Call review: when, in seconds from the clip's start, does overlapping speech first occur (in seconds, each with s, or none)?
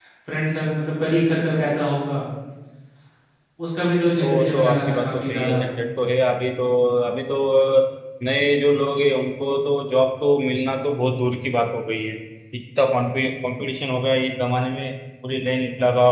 4.2 s